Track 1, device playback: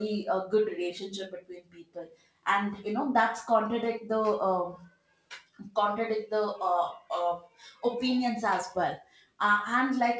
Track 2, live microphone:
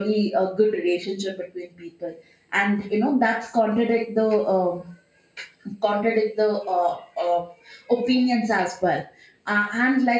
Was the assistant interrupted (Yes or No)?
No